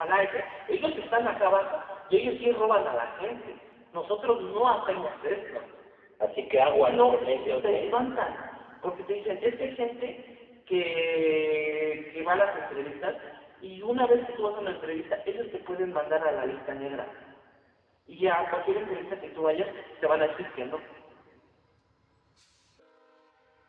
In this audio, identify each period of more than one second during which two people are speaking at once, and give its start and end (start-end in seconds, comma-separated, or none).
6.7-8.0